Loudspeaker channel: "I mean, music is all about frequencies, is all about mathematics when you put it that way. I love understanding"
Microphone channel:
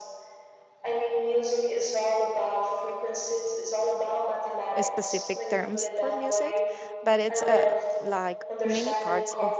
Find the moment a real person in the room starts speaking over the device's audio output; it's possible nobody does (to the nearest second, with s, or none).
5 s